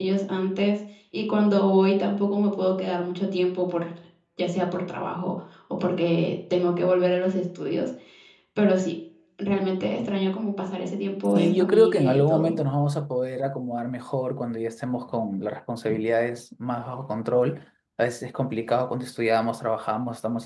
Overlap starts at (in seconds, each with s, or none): 11.4 s